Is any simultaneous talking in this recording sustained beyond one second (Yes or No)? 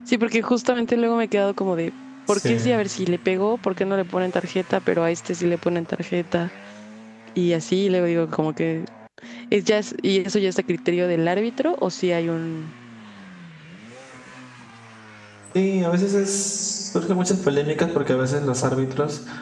No